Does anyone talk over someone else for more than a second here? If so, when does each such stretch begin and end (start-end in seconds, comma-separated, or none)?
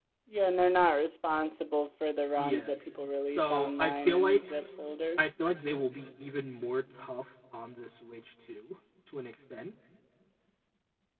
3.3-4.5